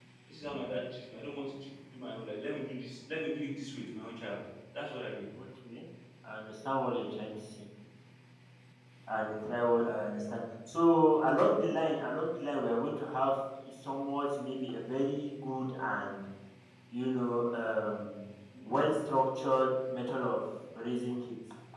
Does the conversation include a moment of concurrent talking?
No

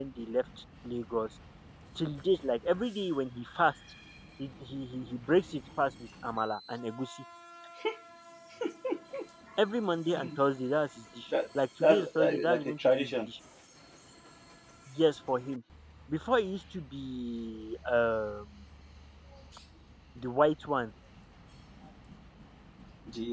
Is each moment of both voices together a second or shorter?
No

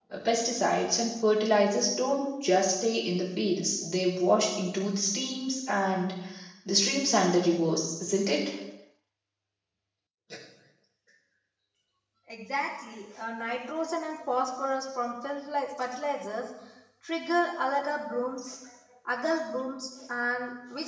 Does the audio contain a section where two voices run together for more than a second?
No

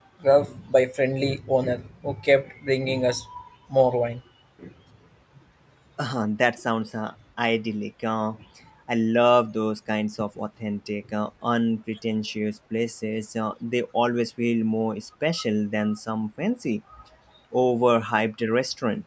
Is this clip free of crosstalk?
Yes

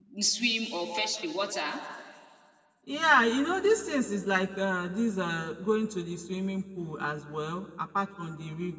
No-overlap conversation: Yes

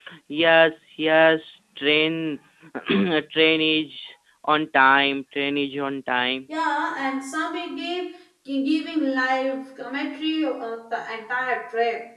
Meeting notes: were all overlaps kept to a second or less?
Yes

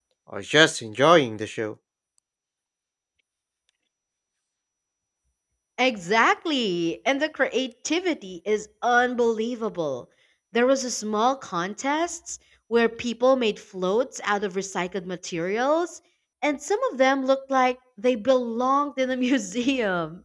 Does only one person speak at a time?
Yes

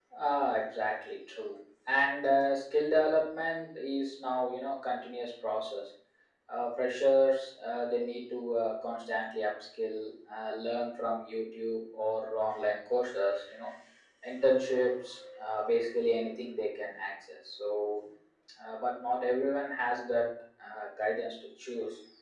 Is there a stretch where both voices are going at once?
No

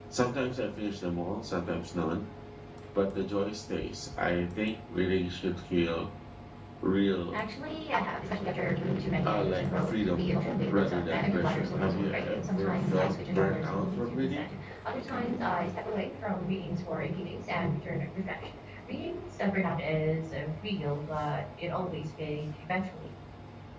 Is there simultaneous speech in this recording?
Yes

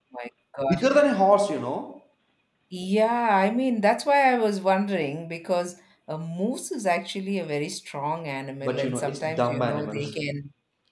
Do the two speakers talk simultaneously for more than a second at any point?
Yes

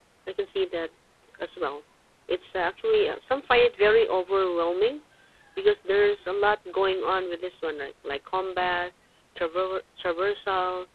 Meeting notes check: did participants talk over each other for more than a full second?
No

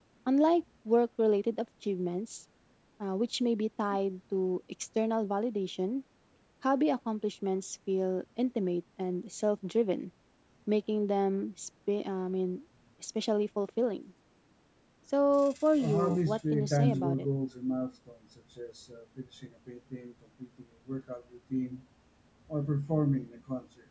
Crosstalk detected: Yes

